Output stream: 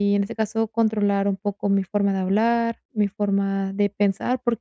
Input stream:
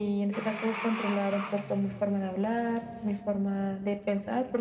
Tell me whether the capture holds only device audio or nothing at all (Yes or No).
Yes